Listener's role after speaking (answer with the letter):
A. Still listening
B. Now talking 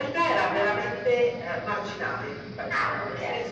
A